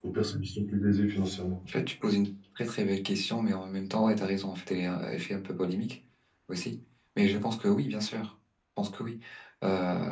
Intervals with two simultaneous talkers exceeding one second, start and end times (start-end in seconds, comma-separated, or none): none